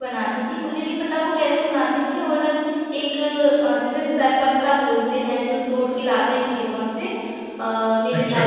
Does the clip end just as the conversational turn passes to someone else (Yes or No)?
No